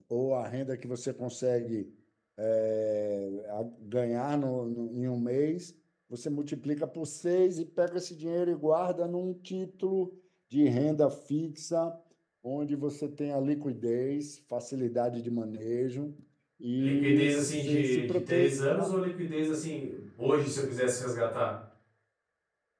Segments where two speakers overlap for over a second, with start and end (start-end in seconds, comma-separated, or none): 16.8-18.5